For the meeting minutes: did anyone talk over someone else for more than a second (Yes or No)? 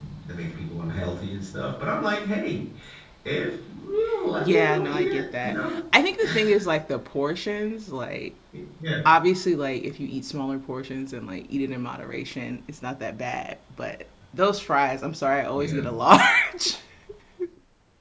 Yes